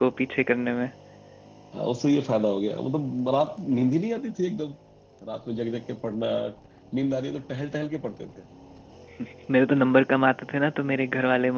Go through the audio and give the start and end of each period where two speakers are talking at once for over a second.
none

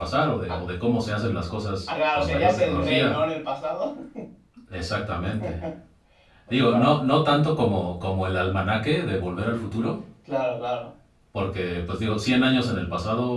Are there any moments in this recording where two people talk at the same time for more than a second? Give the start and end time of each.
1.9-3.2

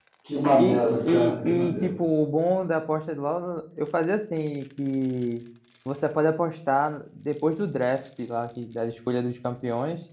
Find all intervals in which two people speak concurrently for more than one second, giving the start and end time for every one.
0.5-1.9

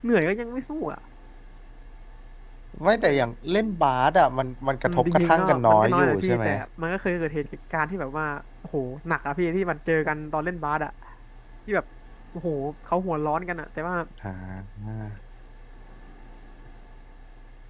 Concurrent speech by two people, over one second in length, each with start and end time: 4.9-6.5

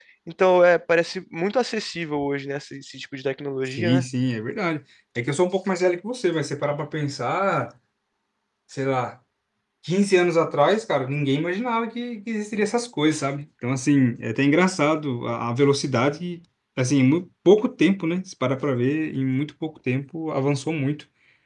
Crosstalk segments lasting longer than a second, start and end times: none

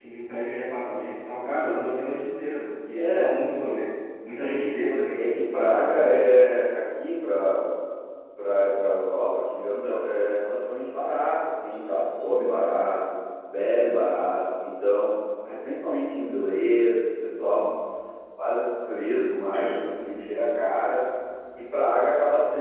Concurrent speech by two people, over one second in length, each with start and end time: 5.2-6.4

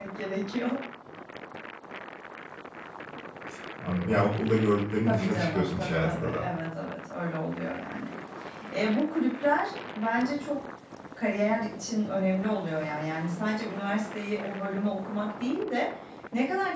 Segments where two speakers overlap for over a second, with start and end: 5.1-6.4

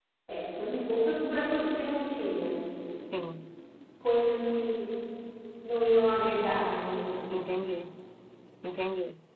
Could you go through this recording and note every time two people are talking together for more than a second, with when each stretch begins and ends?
none

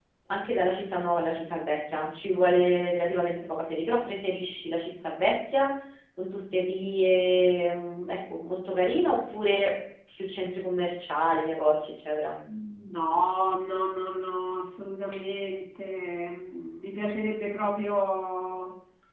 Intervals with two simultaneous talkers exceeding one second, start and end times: none

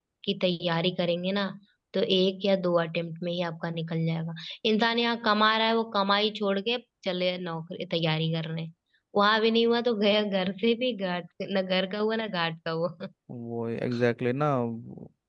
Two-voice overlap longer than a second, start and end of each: none

